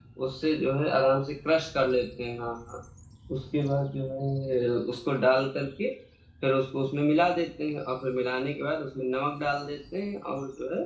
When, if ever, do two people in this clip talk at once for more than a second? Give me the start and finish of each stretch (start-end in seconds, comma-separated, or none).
none